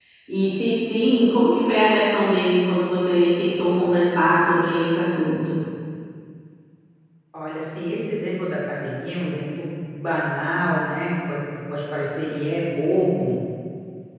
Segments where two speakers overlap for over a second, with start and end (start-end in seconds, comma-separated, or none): none